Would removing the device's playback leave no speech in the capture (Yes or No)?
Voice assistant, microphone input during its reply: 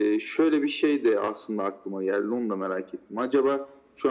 Yes